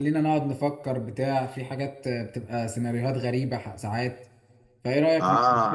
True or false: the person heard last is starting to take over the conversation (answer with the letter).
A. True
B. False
A